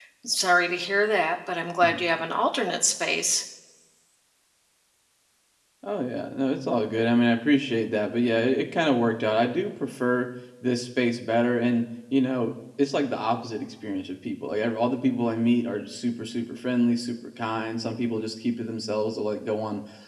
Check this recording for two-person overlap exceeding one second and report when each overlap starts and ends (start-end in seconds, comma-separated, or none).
none